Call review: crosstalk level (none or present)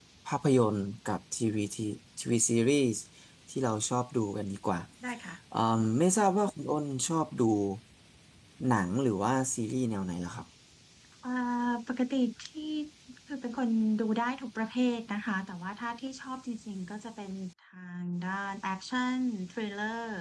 none